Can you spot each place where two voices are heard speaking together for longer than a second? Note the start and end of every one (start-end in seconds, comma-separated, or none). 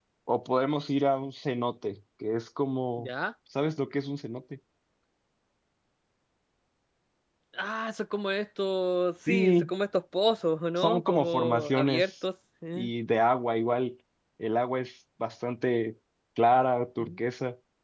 10.8-12.1